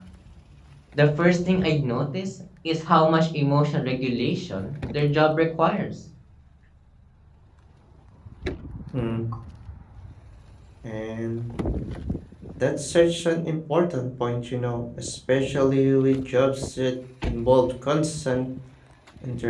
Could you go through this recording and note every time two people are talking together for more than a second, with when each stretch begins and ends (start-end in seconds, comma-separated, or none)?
none